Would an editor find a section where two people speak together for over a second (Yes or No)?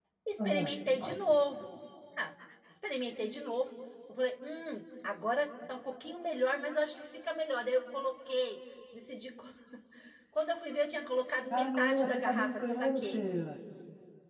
Yes